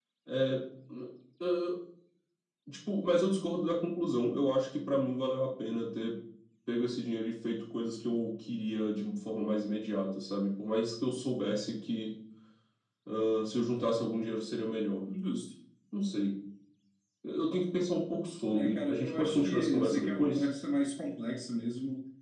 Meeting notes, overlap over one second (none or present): present